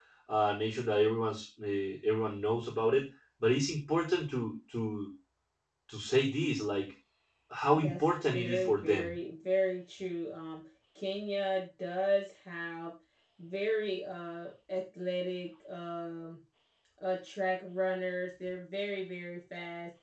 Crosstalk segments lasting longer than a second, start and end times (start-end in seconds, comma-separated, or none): 7.8-9.1